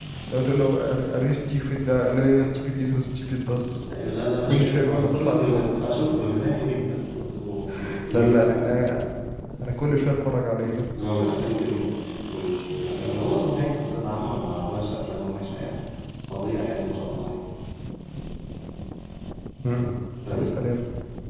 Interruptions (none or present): present